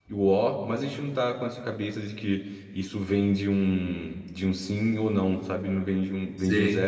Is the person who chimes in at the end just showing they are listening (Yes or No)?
Yes